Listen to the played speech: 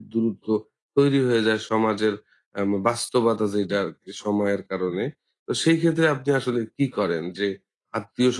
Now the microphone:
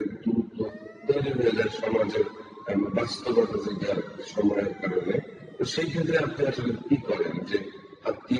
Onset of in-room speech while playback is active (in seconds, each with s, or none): none